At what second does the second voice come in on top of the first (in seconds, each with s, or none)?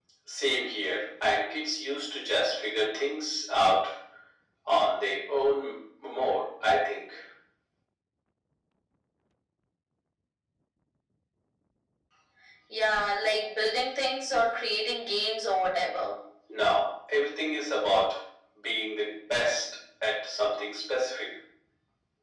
none